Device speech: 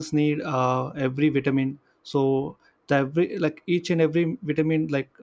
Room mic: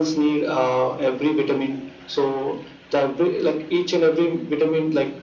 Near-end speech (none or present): none